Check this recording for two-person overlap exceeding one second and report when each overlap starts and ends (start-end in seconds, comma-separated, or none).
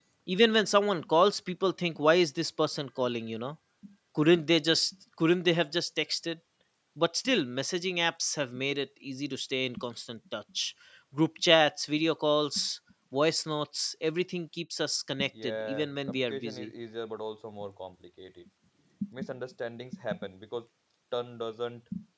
15.4-16.7